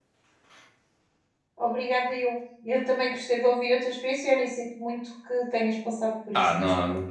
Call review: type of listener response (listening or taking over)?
taking over